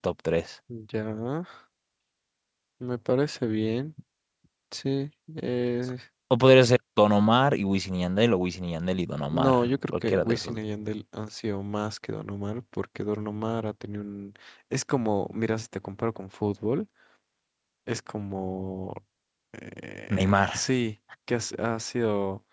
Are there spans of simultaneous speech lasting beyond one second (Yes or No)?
Yes